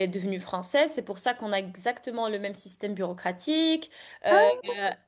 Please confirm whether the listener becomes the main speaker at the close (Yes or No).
No